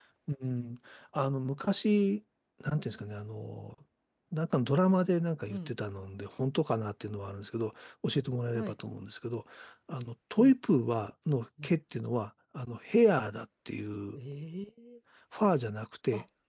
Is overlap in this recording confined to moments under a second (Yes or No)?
Yes